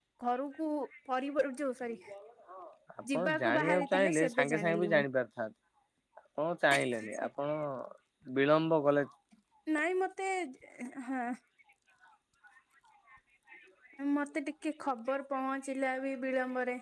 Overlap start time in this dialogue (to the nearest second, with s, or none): 3 s